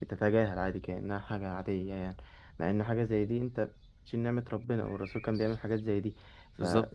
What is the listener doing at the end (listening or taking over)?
listening